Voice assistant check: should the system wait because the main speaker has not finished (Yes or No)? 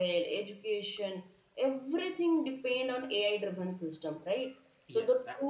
No